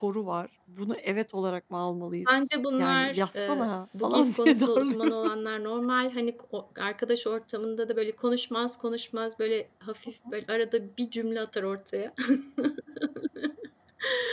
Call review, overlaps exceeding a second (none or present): present